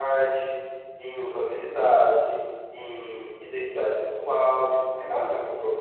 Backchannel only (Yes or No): No